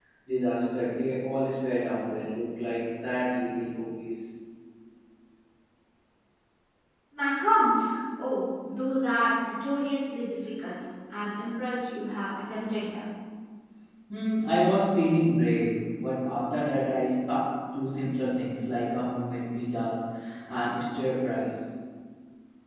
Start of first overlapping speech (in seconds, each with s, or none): none